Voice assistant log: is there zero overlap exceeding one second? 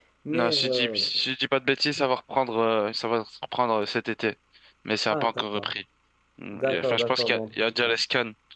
No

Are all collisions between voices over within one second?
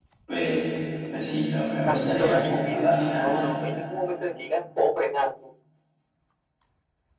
No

